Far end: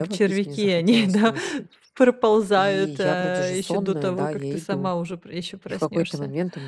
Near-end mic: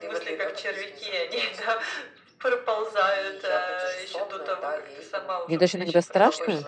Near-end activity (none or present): present